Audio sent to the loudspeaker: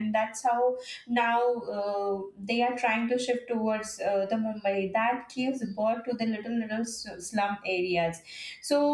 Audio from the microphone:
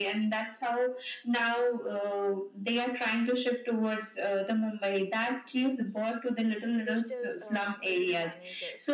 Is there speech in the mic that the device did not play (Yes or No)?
Yes